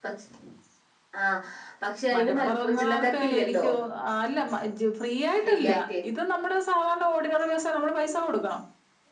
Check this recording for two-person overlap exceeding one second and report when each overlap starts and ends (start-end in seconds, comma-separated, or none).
2.1-3.7